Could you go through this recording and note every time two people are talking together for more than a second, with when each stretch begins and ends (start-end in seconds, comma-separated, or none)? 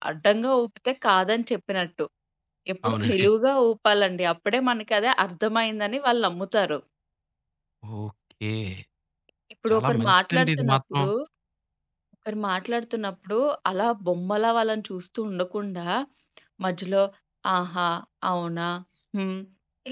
9.7-11.0